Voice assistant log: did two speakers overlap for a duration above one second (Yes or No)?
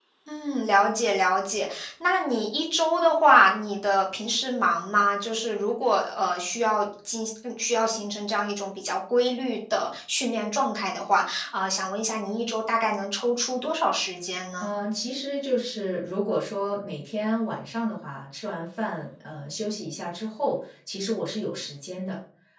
No